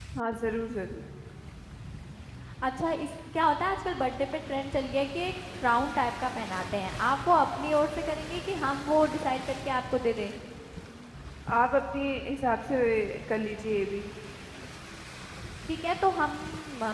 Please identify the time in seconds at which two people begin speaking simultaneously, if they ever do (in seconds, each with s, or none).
none